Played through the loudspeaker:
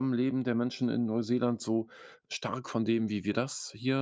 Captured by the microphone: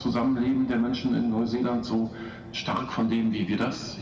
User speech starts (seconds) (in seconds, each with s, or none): none